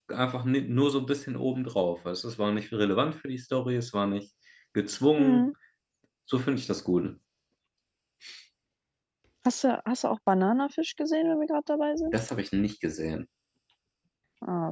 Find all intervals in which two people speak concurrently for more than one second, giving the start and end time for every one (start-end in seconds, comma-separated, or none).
none